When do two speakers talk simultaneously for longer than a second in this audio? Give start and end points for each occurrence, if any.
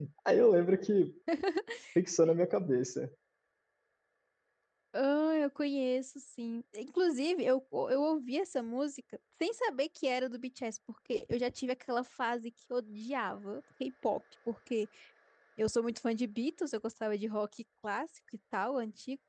none

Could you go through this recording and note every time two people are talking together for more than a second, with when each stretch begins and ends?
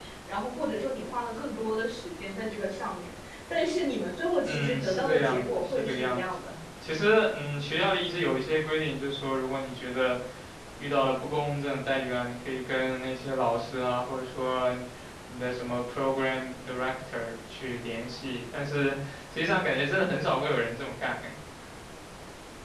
4.4-6.3

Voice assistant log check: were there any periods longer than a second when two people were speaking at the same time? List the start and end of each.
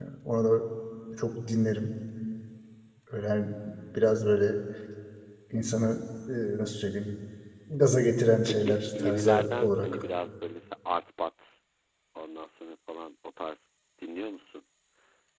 8.4-10.0

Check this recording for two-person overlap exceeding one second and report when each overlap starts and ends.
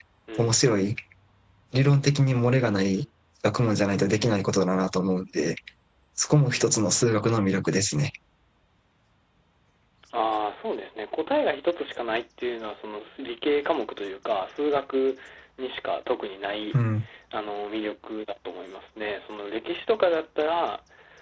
none

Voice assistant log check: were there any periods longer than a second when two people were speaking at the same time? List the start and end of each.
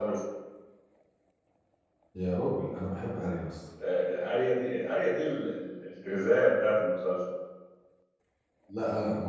none

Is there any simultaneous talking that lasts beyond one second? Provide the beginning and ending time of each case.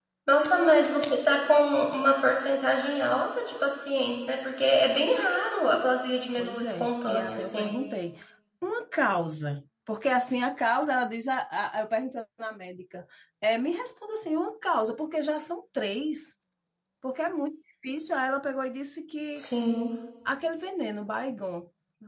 6.3-7.8

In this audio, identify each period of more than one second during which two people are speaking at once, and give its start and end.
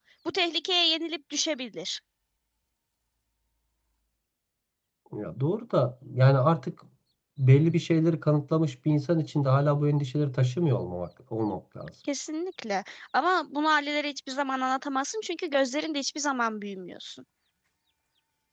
none

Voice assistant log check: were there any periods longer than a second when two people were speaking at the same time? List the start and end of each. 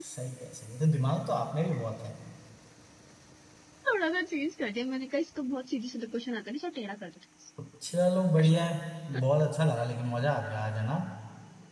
none

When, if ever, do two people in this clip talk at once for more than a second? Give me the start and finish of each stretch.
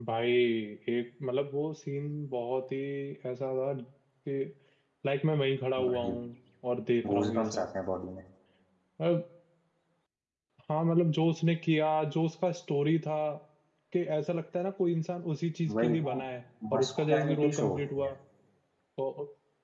16.7-18.1

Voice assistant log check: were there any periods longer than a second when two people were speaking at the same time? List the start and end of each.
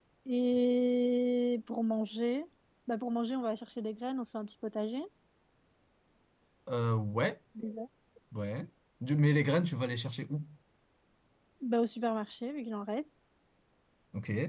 none

